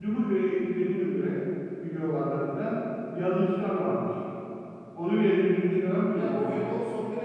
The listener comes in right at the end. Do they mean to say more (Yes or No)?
Yes